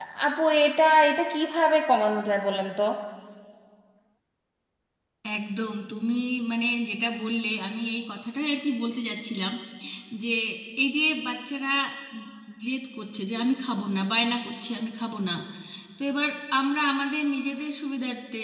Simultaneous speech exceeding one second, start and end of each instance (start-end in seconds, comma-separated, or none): none